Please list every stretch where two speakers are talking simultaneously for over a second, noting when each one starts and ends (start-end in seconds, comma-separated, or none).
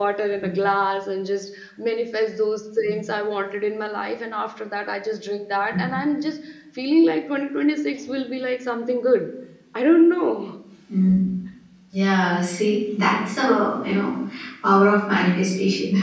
none